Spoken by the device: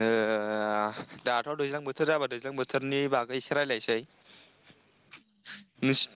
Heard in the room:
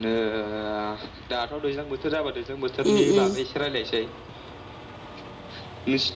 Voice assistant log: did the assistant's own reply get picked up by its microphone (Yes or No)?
Yes